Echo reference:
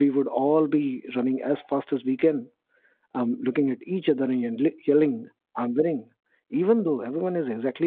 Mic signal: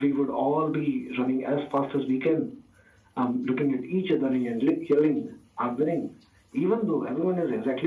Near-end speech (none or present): none